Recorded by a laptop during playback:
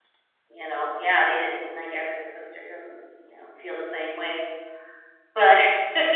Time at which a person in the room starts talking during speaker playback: none

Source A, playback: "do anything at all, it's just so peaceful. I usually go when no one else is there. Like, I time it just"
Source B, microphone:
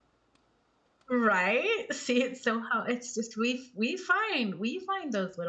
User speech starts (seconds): 1.1 s

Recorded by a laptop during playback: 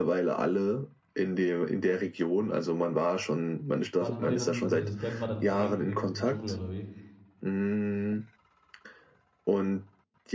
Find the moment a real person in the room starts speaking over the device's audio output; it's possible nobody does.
4.0 s

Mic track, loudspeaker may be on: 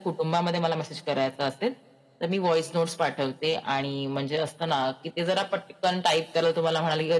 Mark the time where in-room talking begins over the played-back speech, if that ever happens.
none

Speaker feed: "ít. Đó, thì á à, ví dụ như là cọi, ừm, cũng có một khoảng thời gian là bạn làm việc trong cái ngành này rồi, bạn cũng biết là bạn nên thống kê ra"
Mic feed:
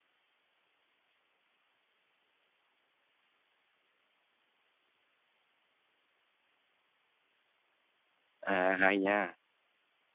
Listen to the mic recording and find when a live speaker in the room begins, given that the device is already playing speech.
8.4 s

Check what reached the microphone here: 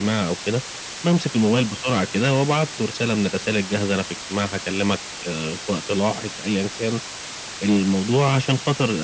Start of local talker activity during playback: none

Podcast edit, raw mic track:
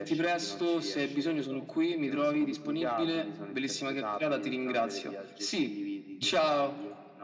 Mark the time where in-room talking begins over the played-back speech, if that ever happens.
none

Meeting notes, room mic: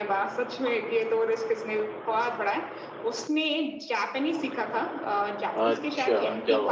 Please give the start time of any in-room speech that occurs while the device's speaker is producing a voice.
5.6 s

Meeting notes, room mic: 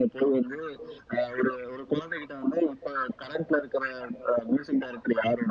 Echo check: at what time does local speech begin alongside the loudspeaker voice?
none

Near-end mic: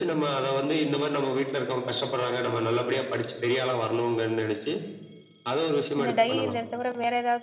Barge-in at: 6.0 s

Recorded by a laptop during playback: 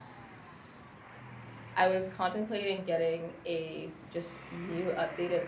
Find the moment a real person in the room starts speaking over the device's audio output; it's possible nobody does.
1.7 s

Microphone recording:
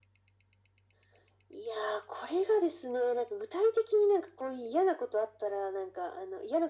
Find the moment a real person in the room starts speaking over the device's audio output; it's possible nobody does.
none

